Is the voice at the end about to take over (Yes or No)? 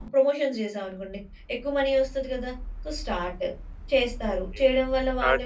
Yes